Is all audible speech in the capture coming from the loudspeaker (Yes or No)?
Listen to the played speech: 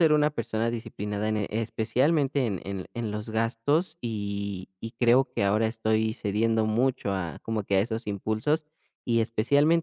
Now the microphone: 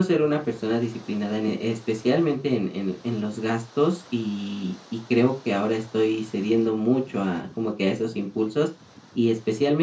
Yes